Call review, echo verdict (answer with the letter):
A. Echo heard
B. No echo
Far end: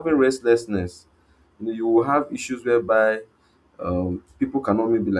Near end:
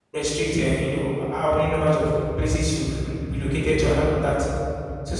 B